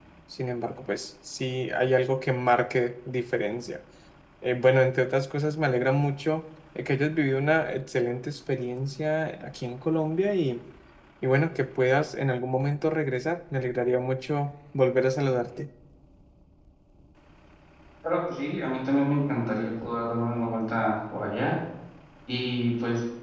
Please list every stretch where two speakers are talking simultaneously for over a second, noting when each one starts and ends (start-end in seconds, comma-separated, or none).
none